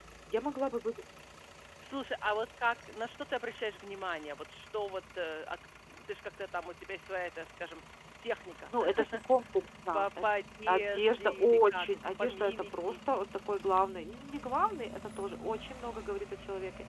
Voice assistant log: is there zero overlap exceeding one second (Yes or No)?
No